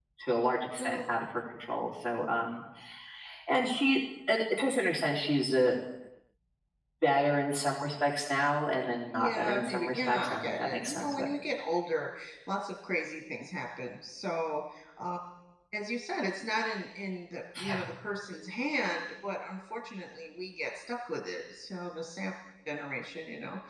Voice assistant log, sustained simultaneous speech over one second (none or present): present